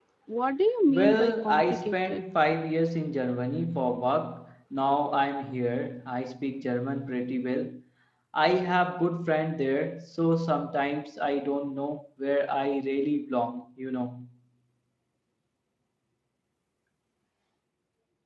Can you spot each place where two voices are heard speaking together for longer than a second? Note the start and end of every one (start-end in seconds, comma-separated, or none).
0.9-2.2